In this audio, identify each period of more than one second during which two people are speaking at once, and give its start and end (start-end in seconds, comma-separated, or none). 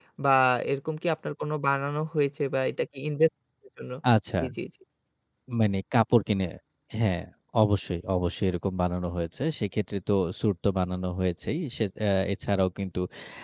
none